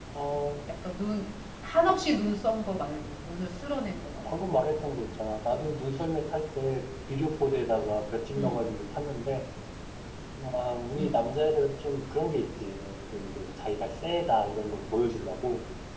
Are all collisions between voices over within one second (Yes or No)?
Yes